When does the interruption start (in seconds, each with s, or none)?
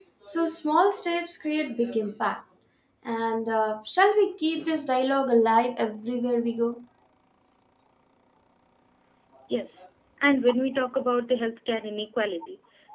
none